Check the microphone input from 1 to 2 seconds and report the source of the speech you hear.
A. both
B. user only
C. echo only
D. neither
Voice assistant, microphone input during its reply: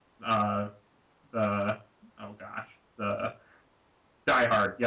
B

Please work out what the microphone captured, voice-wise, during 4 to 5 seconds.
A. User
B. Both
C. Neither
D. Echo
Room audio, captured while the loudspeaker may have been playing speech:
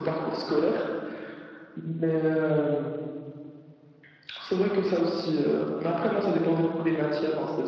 D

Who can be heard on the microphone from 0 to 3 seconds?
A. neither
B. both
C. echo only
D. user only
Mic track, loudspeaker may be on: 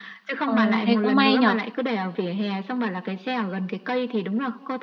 B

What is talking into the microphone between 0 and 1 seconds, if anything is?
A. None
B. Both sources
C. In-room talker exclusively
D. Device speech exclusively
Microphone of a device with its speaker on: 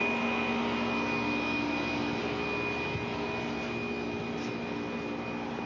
A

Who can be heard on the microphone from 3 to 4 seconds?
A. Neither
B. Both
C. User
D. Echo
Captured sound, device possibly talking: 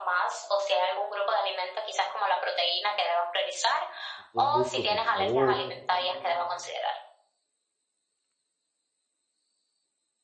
D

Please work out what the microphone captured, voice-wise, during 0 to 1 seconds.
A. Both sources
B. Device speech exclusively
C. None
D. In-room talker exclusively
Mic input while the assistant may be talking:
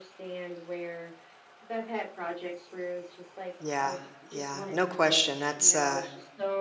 B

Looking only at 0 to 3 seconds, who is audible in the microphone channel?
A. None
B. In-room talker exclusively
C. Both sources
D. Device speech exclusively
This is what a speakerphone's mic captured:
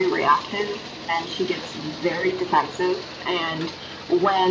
D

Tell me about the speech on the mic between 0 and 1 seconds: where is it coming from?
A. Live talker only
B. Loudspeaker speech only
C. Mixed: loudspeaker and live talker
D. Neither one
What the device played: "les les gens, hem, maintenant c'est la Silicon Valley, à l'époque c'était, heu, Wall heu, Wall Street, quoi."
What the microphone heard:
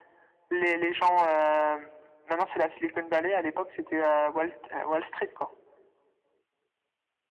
B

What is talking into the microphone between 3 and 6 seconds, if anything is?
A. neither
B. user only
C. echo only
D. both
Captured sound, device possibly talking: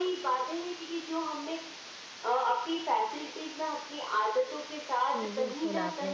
D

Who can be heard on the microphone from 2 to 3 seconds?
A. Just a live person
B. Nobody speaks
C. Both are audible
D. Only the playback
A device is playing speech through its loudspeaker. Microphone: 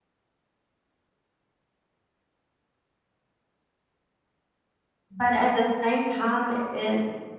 B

